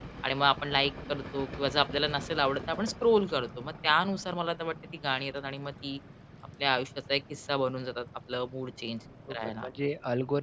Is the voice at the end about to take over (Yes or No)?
Yes